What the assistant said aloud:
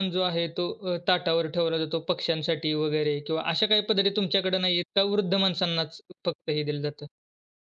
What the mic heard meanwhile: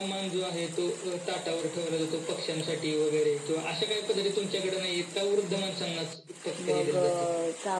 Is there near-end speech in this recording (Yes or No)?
Yes